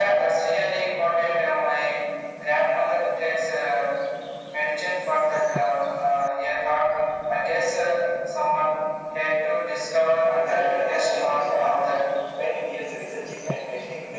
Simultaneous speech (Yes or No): Yes